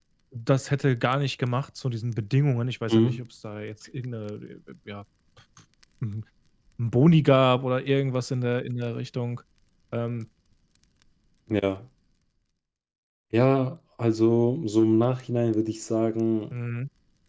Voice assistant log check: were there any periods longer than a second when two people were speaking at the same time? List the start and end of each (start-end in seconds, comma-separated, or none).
none